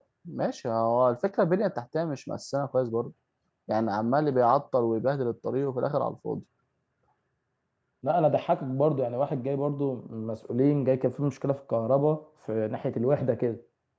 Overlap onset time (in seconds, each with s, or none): none